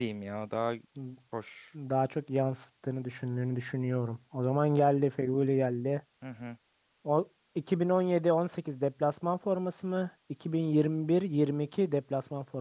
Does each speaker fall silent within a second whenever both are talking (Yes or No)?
Yes